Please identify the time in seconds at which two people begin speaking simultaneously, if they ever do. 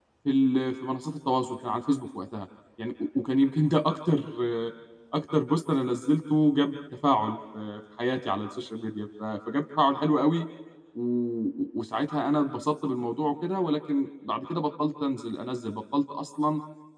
none

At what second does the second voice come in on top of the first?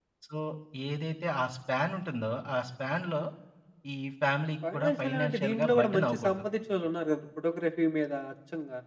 4.7 s

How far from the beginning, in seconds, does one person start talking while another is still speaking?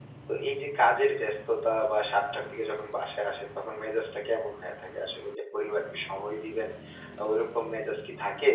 none

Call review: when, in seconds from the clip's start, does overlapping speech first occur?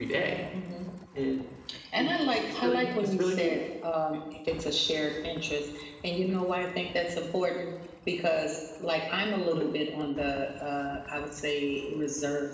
2.0 s

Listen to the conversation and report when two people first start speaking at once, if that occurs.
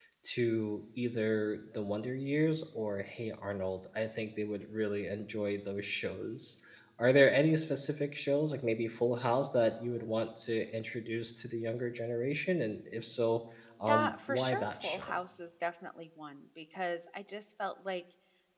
13.8 s

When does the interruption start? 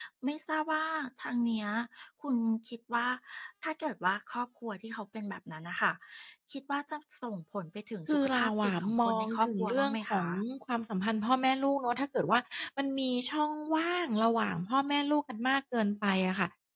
8.1 s

